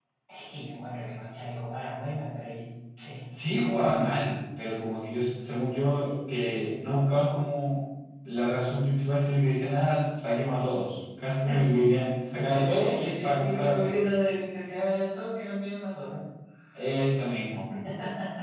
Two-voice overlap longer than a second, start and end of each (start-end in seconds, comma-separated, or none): 12.3-14.0